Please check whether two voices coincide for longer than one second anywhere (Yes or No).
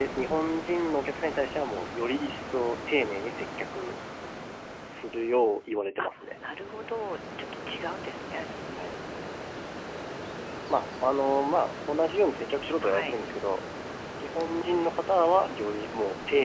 No